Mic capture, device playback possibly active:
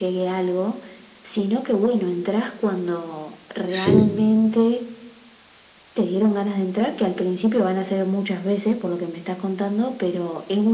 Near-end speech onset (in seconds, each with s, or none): 3.6 s